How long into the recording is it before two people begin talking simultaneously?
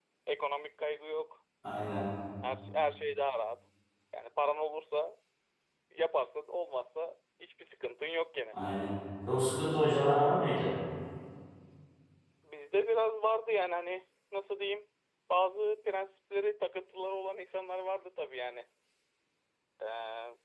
none

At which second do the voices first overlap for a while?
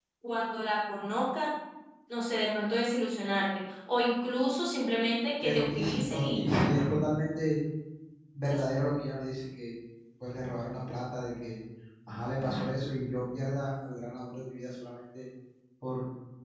5.4 s

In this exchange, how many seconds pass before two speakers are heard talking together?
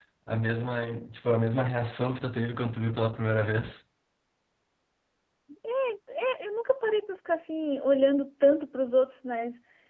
none

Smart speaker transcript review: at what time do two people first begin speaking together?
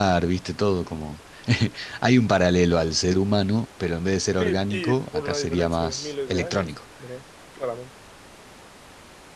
4.4 s

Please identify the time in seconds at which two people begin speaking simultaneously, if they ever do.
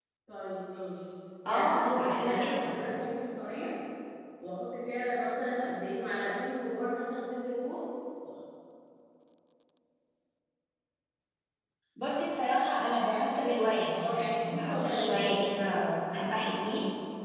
1.5 s

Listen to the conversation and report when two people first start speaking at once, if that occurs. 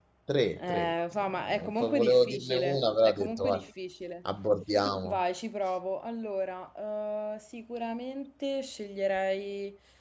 0.6 s

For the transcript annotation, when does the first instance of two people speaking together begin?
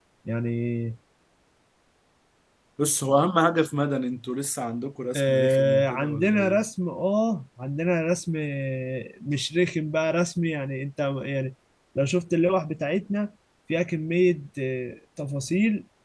5.1 s

